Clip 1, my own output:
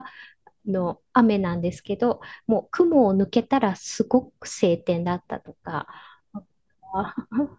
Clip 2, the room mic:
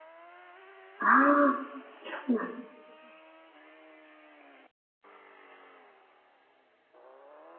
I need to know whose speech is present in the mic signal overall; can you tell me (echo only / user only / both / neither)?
user only